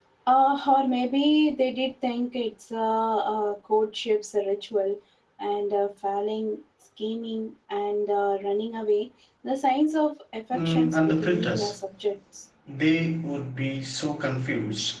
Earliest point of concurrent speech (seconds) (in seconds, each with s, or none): 10.5 s